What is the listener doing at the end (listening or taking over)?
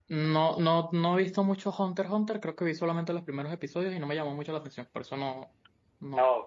taking over